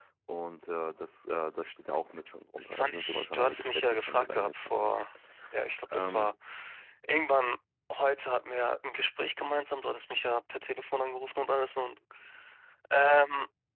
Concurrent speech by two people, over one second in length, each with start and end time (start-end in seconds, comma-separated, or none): 2.6-4.9